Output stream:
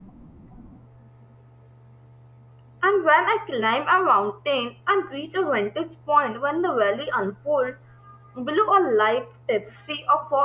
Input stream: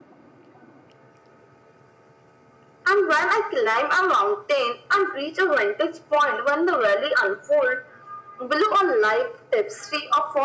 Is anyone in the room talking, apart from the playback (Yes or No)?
No